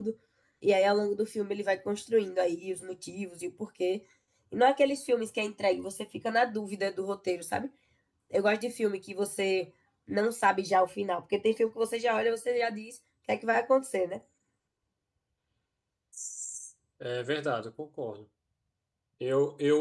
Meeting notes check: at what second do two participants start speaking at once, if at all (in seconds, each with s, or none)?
none